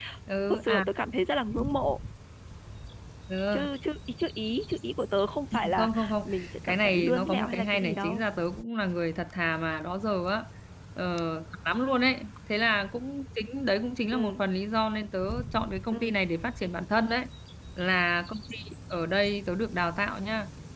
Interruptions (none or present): present